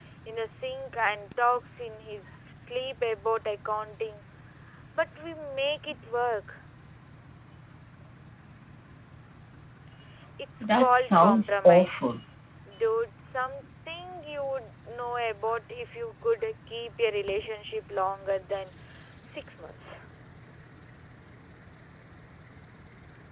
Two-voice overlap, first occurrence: 10.6 s

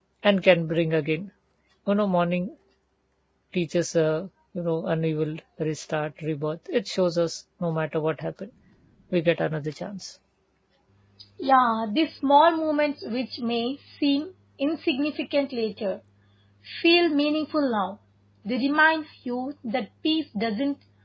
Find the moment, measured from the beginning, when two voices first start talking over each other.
none

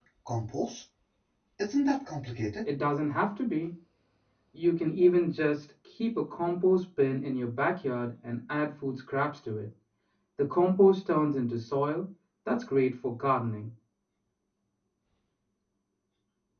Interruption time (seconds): none

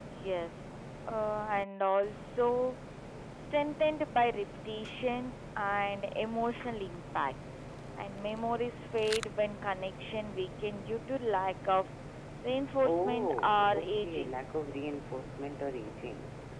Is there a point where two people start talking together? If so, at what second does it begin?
12.8 s

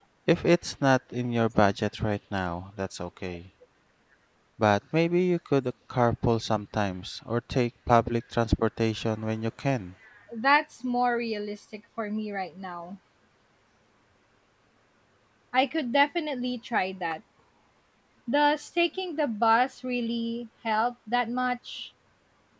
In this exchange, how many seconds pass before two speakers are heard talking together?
none

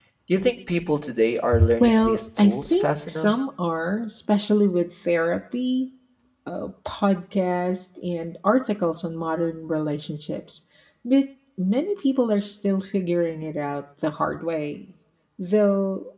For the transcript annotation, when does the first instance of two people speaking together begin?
1.5 s

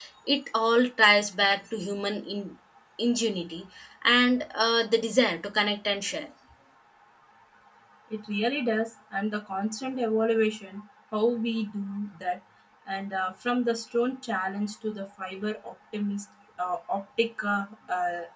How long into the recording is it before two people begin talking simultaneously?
none

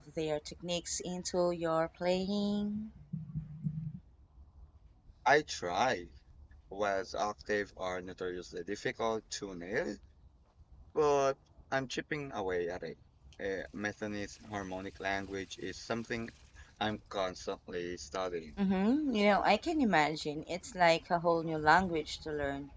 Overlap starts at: none

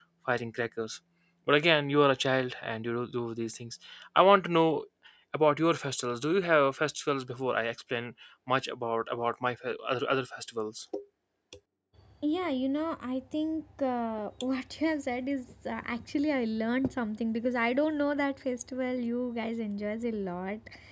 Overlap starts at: none

